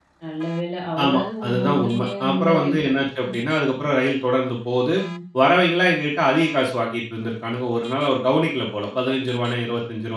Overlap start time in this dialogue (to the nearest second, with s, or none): 1 s